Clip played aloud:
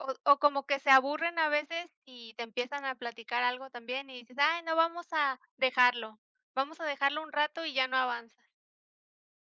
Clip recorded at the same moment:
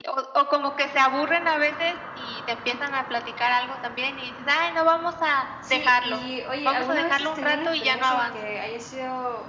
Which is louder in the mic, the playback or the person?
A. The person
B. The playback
B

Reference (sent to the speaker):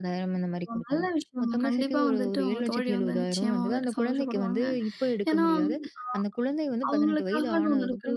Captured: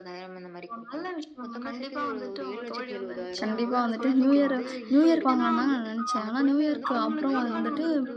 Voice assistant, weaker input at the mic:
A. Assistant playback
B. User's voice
A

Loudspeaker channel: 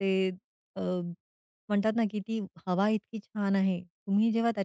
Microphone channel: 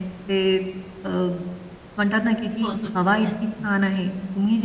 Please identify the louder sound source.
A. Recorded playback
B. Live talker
A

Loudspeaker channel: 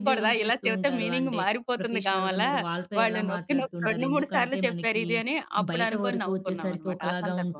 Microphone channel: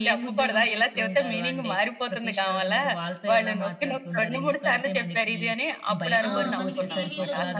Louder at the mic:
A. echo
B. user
A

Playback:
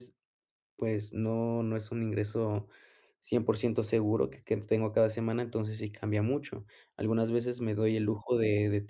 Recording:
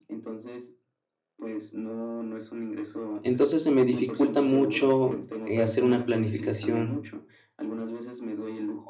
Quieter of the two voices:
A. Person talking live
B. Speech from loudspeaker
B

